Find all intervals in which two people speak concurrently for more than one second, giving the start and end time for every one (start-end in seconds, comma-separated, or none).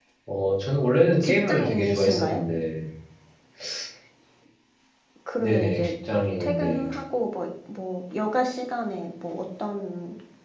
1.2-2.4